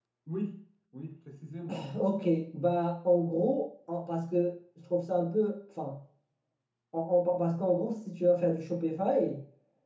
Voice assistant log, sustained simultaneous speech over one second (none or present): none